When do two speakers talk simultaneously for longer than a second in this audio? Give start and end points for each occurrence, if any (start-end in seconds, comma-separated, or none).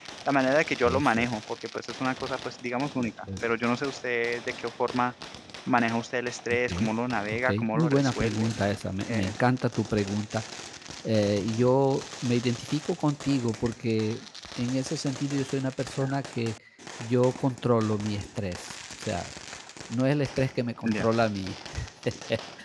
7.3-8.5